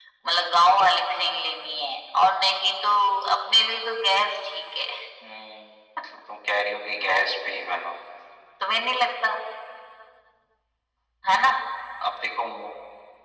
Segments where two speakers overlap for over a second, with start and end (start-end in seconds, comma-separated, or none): none